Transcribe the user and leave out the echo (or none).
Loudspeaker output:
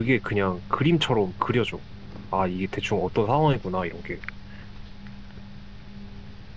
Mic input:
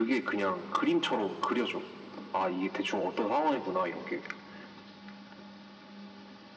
none